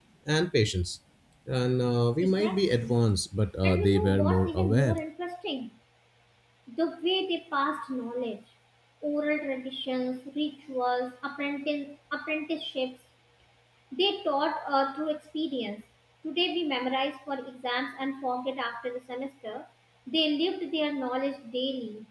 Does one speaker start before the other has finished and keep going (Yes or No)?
Yes